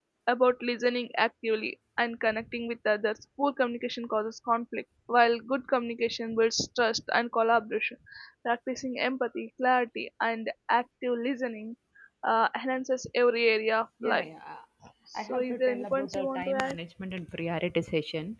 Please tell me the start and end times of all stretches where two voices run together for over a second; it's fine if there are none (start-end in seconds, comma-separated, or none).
15.2-16.8